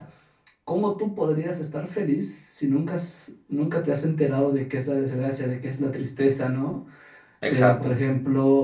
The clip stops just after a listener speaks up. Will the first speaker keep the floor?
Yes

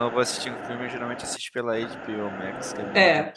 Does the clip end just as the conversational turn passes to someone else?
Yes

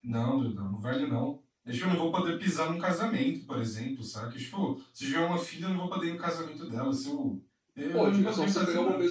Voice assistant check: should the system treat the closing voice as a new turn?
Yes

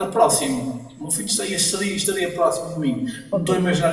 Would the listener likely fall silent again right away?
Yes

